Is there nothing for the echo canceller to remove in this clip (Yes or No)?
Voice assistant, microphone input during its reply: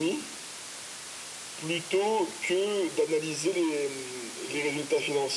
No